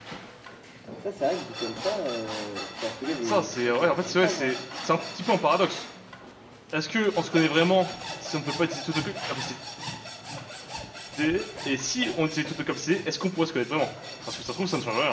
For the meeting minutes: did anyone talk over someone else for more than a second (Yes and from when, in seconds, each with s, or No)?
Yes, from 3.2 s